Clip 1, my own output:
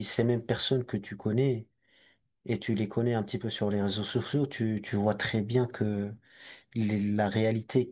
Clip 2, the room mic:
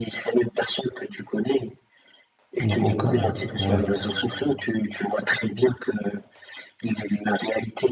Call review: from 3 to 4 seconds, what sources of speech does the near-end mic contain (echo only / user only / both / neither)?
both